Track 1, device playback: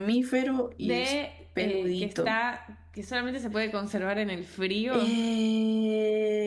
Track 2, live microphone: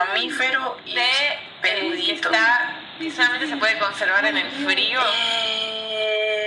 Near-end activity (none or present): present